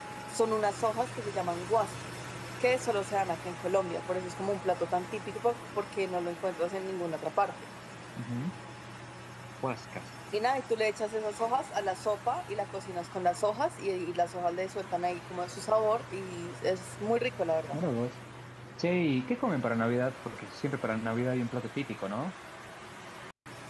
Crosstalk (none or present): none